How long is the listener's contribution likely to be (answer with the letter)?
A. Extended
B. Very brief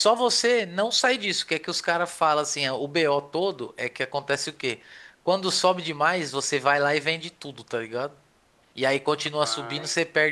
B